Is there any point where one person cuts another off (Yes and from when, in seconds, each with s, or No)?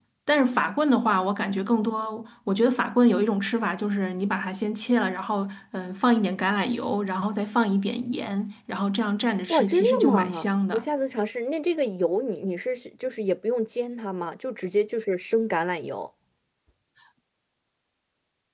Yes, from 9.5 s